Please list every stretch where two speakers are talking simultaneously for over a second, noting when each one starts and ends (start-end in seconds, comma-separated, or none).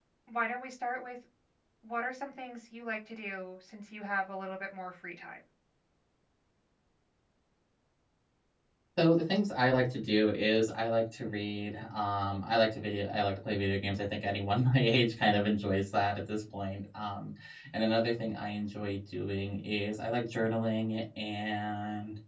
none